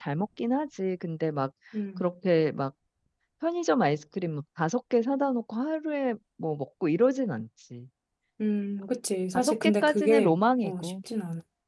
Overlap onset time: 9.3 s

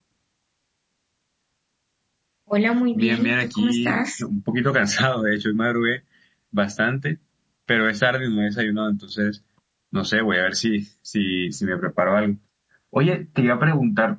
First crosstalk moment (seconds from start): 2.9 s

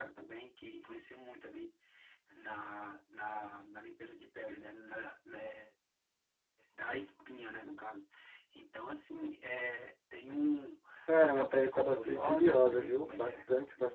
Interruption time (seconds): 11.2 s

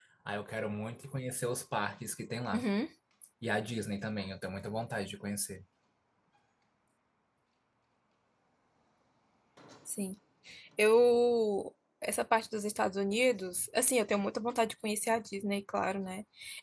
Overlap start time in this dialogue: none

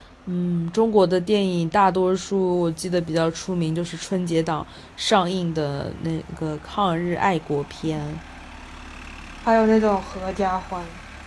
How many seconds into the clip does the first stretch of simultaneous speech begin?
none

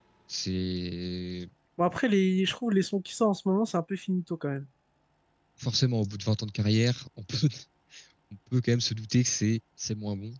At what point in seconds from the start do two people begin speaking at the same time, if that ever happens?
none

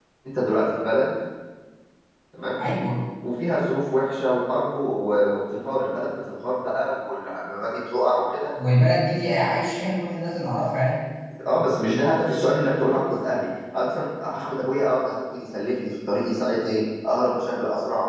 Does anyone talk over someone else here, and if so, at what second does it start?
none

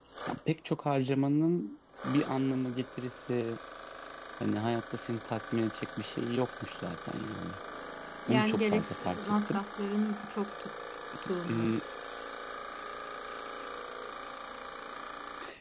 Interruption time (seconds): 8.3 s

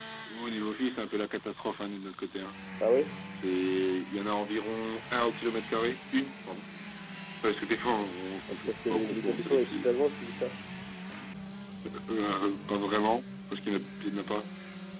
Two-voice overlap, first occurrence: 8.5 s

